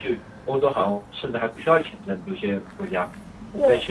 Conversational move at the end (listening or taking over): listening